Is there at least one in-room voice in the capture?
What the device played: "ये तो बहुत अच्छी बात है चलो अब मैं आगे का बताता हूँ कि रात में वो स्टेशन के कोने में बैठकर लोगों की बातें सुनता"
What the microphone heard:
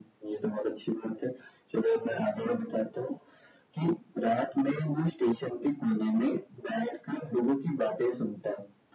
No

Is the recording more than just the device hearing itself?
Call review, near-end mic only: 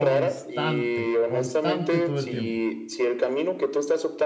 Yes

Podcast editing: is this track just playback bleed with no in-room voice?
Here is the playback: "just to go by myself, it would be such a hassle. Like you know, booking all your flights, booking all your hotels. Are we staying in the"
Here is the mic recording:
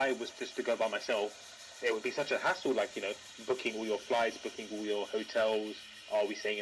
Yes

